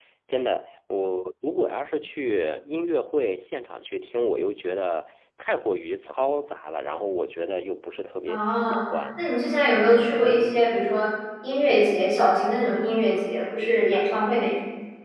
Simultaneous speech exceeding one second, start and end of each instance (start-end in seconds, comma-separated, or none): none